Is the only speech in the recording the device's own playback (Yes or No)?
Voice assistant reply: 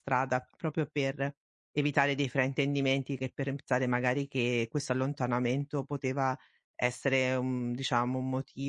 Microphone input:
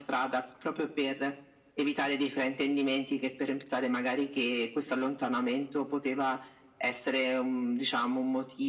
Yes